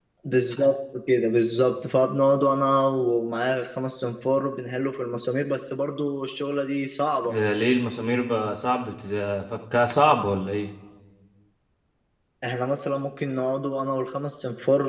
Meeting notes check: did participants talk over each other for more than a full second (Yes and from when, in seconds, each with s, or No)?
No